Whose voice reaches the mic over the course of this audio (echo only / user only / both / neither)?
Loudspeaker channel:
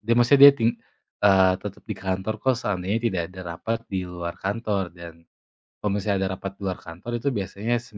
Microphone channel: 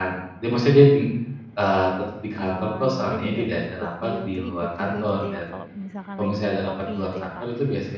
both